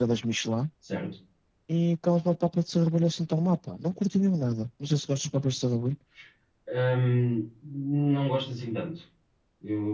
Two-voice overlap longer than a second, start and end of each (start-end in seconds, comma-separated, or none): none